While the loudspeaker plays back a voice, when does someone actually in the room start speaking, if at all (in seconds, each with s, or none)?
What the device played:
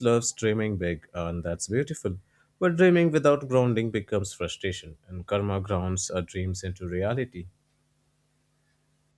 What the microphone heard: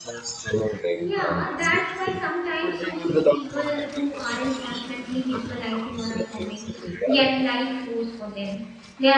1.0 s